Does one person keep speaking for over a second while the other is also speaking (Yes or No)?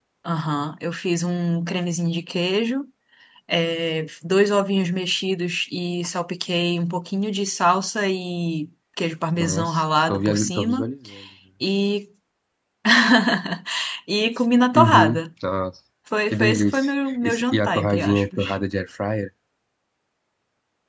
Yes